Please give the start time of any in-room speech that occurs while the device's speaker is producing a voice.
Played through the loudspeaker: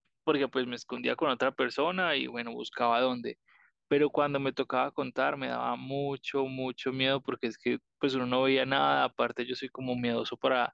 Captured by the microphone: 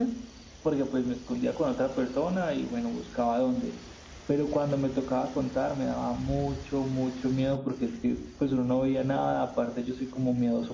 none

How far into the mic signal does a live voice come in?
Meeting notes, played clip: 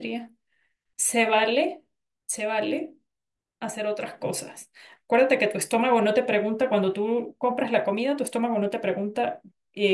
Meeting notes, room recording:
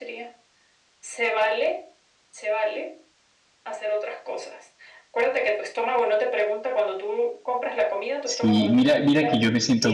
8 s

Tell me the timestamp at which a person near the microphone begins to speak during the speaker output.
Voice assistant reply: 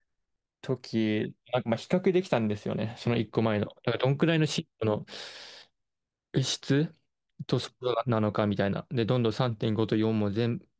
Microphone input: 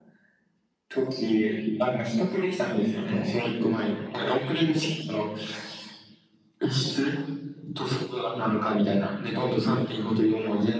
none

